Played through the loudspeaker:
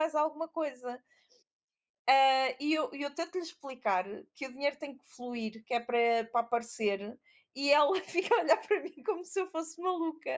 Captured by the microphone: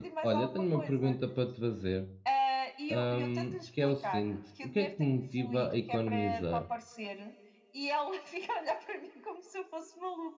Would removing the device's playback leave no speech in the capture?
No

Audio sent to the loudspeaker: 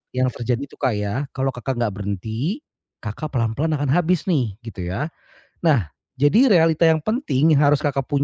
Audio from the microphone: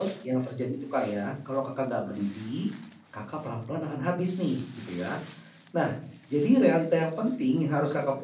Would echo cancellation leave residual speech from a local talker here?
No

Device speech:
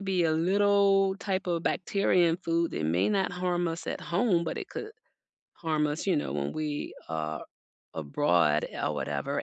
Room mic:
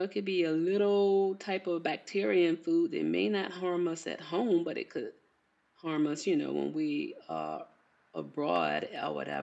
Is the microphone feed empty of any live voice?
Yes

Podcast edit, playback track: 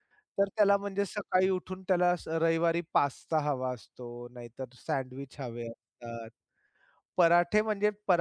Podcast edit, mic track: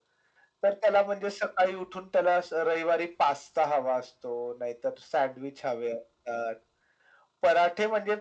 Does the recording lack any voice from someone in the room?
Yes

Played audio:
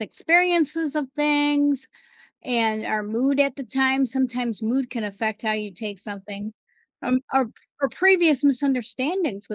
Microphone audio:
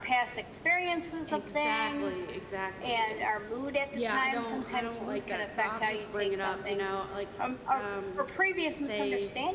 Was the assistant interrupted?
Yes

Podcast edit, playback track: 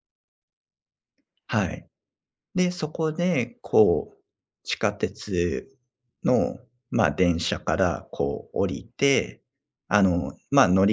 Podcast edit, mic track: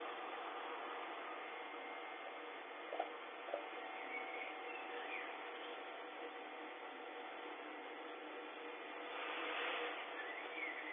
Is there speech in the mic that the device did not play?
No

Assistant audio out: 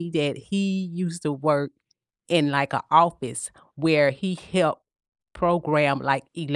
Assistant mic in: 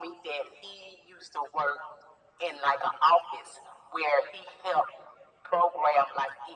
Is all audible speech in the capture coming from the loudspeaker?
Yes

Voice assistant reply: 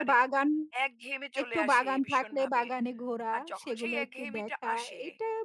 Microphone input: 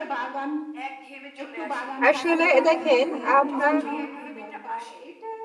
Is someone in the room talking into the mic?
Yes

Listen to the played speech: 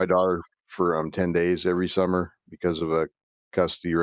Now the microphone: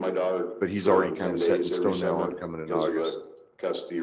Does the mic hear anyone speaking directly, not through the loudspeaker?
Yes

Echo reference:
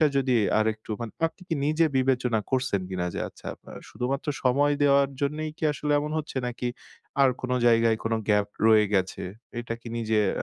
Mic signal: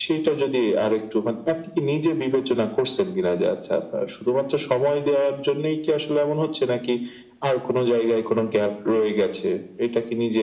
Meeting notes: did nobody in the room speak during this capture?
Yes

